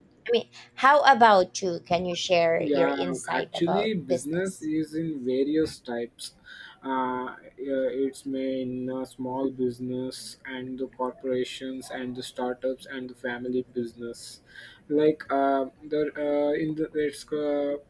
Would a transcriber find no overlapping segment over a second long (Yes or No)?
No